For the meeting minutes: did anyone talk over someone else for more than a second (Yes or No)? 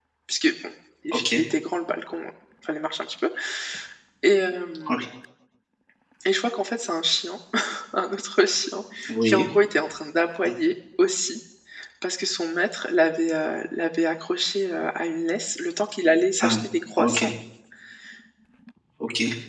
No